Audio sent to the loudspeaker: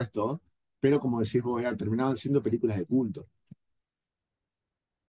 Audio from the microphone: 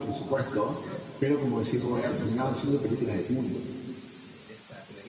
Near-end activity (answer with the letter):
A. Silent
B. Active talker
B